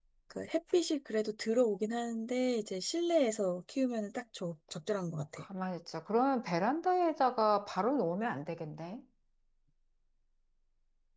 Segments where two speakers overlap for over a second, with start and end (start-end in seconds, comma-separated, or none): none